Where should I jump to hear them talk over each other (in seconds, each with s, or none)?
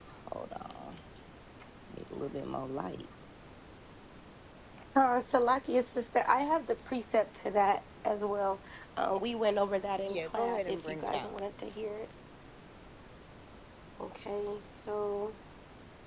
10.1 s